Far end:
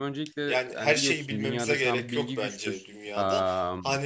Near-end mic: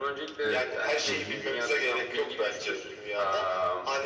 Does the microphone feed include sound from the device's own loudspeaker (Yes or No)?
Yes